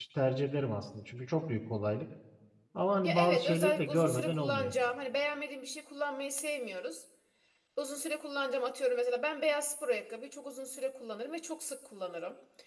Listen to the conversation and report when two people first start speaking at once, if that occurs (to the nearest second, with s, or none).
3 s